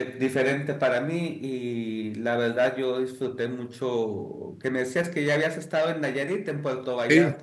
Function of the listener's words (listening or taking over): taking over